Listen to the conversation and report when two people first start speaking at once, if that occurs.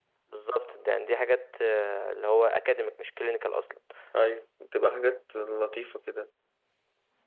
none

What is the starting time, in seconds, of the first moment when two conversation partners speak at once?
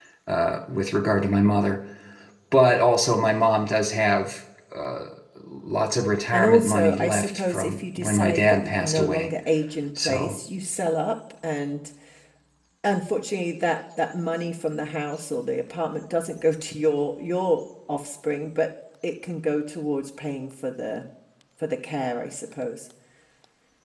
6 s

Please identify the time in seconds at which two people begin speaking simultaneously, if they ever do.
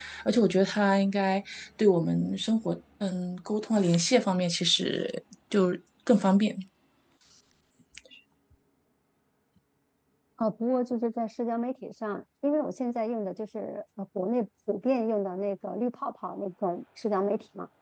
none

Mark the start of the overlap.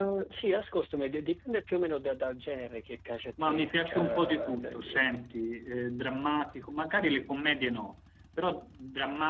3 s

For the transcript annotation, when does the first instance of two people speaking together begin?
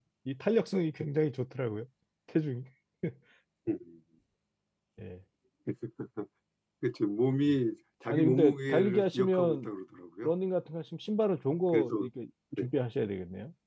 8 s

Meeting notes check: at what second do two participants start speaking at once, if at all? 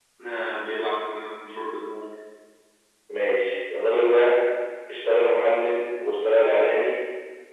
none

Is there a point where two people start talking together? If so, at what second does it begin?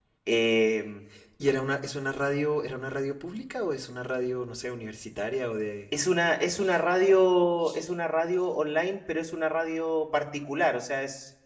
none

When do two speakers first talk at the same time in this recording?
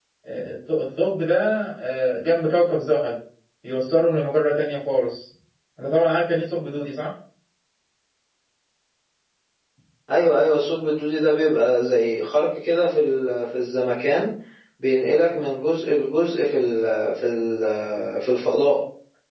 none

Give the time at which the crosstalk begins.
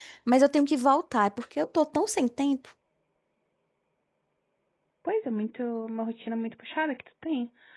none

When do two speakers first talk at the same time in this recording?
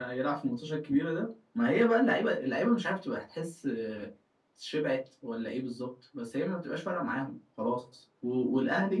none

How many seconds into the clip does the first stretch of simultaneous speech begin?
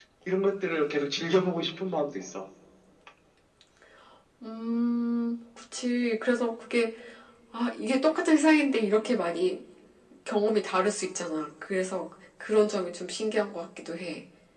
none

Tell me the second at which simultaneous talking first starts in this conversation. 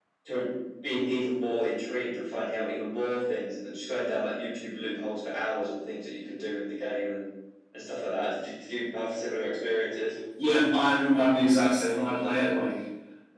none

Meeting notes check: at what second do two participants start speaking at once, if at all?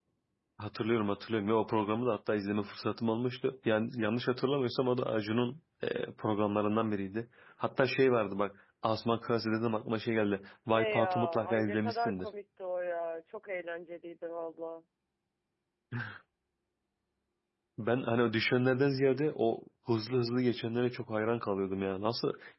11 s

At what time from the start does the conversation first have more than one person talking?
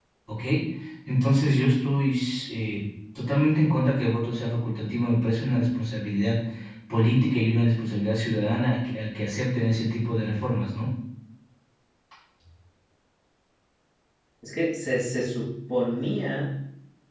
none

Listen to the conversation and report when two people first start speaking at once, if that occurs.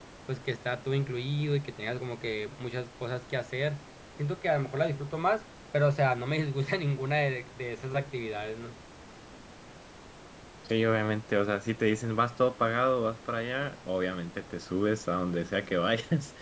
none

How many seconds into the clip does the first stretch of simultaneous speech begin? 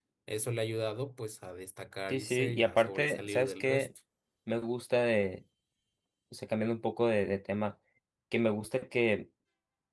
2 s

